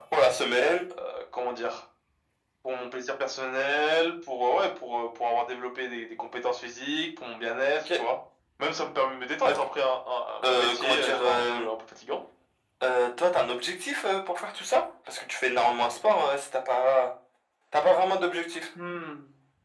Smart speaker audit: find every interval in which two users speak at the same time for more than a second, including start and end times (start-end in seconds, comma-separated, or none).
10.4-11.7